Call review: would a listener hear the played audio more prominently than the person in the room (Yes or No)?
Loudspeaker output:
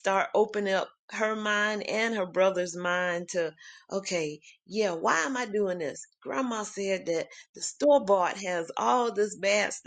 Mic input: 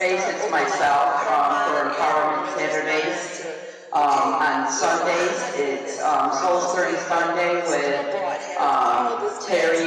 No